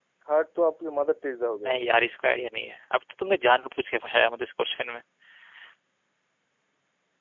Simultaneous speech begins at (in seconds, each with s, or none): none